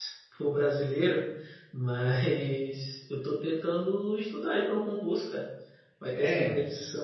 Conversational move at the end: listening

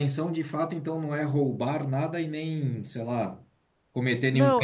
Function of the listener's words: taking over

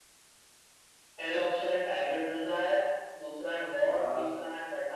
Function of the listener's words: listening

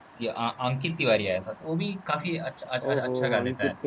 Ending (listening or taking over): taking over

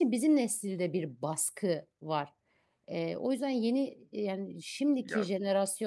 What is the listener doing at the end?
listening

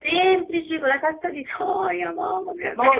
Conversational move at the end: taking over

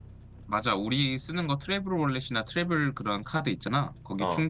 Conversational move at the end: listening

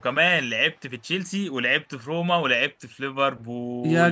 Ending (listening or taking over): taking over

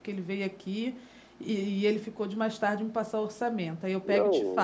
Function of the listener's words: taking over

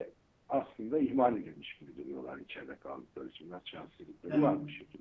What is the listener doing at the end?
taking over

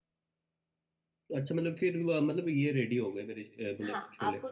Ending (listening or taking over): taking over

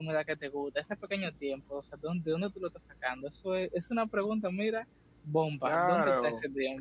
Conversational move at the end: taking over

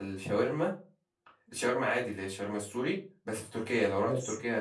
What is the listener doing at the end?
listening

